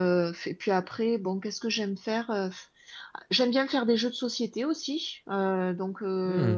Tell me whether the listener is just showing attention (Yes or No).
Yes